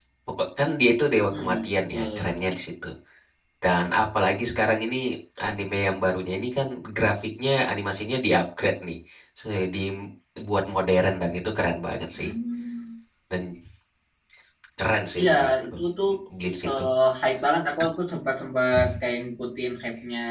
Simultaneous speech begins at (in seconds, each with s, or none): 1.1 s